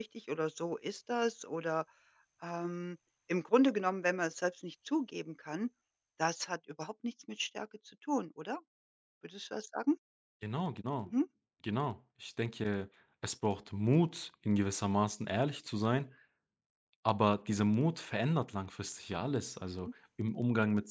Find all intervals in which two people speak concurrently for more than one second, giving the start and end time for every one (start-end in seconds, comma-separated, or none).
none